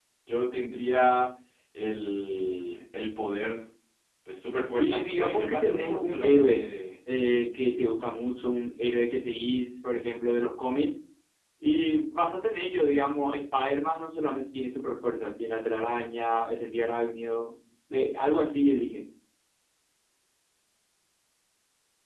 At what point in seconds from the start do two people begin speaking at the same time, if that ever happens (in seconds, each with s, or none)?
4.8 s